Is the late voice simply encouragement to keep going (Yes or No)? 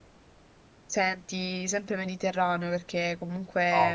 Yes